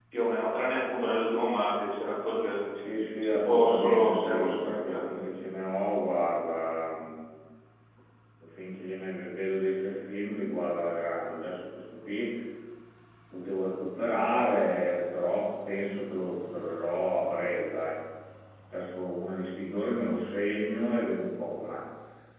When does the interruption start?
3.2 s

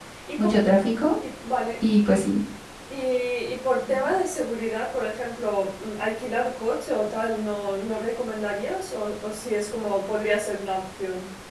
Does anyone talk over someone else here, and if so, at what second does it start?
none

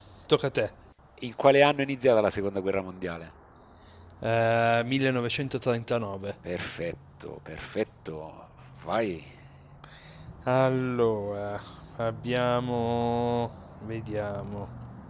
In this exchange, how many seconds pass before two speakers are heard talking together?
none

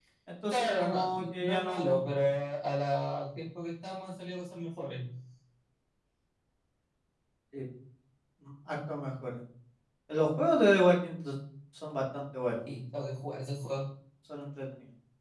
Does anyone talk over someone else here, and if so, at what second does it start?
0.5 s

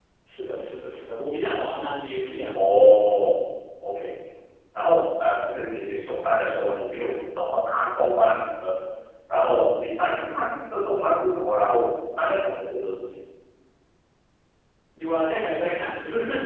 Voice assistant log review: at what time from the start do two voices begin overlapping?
none

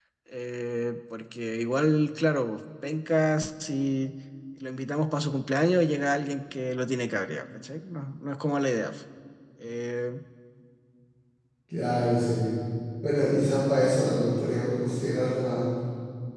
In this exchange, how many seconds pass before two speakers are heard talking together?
none

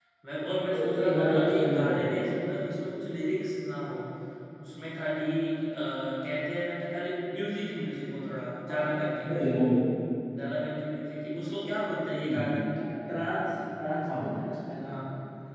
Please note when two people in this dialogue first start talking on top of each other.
0.7 s

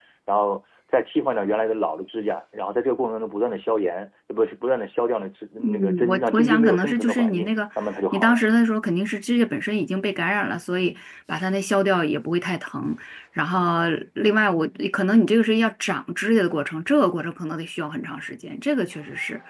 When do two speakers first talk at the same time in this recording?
5.6 s

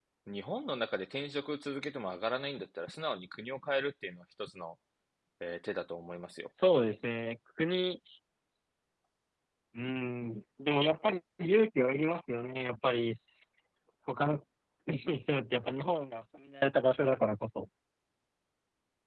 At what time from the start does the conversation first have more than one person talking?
none

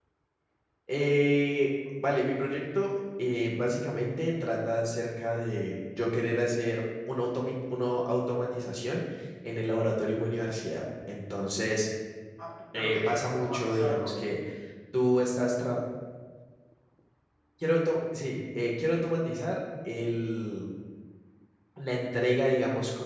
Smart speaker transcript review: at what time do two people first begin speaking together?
12.8 s

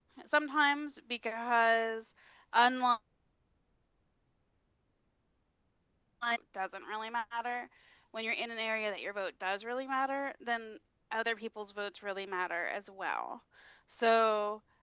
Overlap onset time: none

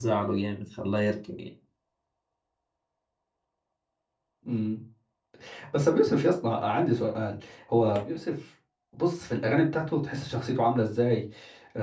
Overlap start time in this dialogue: none

